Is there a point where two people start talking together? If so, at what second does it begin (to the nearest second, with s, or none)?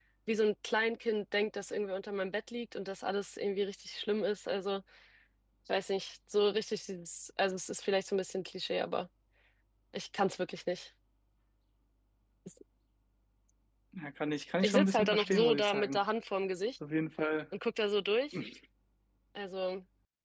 15 s